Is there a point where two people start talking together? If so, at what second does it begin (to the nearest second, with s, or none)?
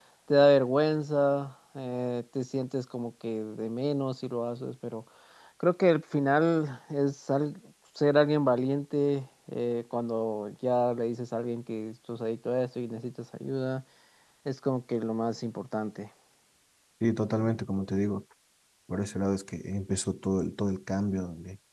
none